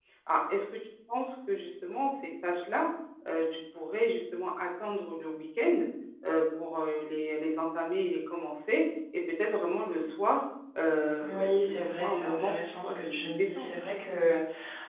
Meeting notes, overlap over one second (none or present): present